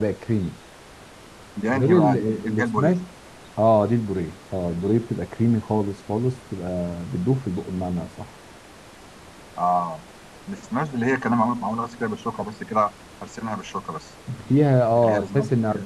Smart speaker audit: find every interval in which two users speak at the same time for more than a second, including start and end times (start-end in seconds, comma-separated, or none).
1.7-3.0